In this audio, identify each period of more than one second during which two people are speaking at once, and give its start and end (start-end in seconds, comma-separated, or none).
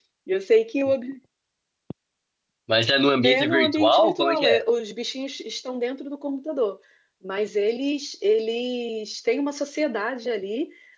3.2-4.6